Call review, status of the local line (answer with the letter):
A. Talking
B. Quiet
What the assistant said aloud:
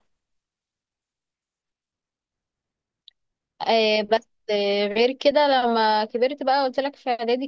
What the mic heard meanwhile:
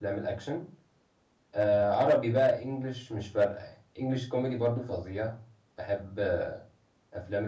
A